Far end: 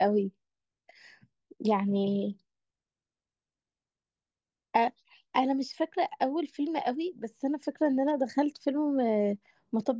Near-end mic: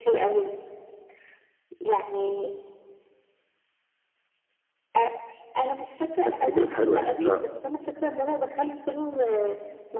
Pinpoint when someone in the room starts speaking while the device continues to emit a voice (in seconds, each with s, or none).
6.2 s